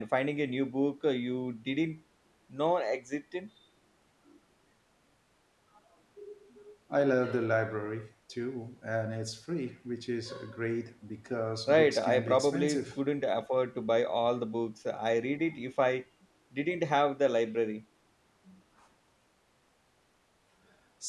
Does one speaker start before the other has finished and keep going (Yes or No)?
Yes